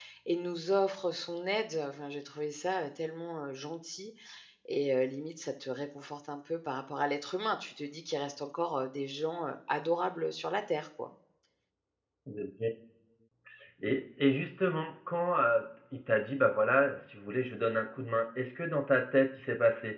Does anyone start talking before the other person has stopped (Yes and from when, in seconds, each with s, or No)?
No